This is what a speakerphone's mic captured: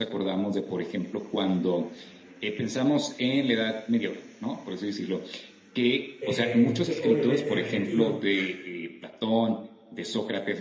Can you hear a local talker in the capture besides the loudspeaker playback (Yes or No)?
Yes